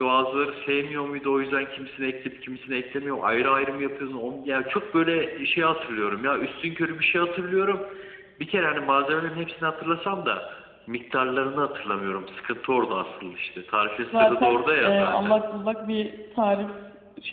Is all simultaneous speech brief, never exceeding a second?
No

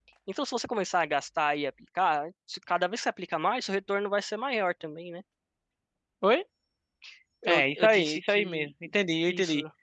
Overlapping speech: Yes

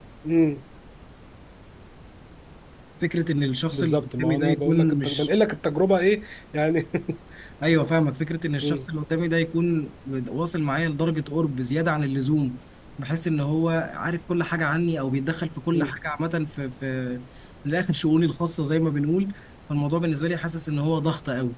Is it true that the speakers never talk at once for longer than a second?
No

